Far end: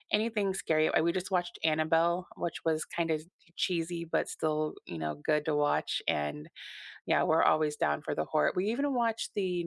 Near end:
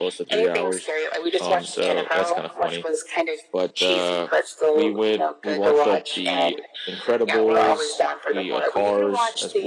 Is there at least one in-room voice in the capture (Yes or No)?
Yes